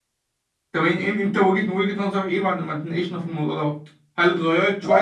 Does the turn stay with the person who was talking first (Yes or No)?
Yes